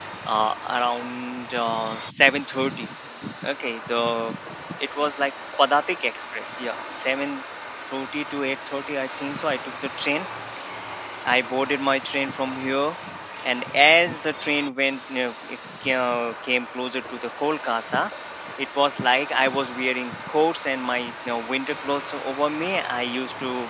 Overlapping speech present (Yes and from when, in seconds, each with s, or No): No